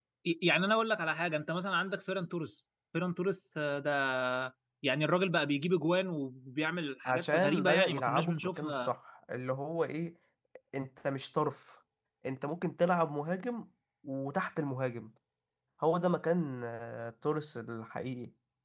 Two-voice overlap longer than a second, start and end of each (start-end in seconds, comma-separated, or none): 7.0-8.9